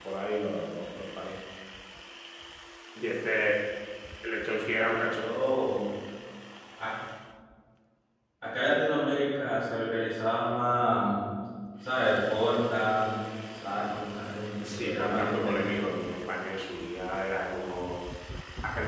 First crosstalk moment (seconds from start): 15 s

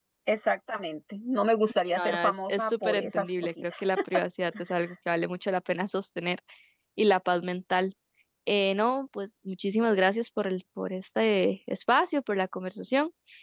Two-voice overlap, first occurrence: 2 s

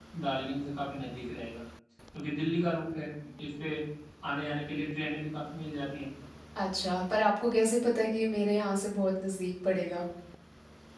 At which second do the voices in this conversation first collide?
none

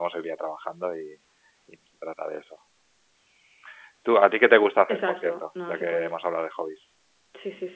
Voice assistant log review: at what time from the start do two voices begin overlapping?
5 s

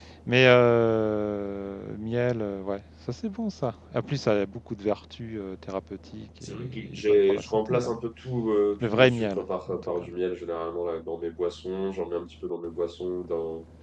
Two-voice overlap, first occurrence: 6 s

